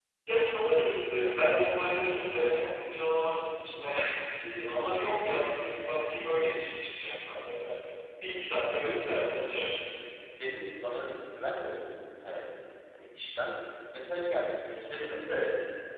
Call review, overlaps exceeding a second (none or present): none